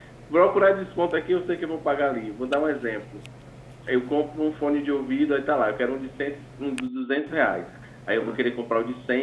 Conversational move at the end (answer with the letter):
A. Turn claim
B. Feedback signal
B